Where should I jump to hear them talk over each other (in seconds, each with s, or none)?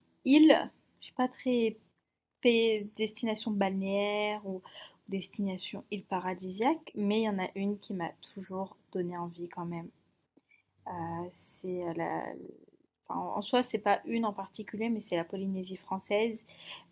none